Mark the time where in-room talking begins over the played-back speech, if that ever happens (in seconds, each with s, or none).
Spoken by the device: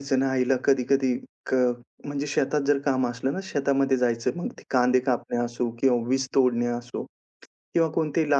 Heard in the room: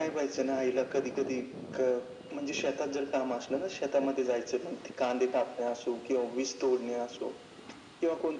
none